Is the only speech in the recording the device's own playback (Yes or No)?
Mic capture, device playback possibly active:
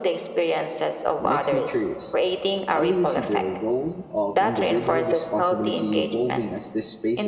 No